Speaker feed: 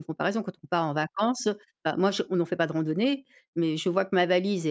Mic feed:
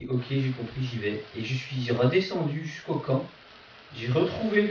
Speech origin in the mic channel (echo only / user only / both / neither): user only